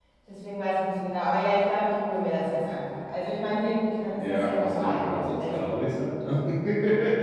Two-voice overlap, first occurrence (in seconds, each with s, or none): 4.2 s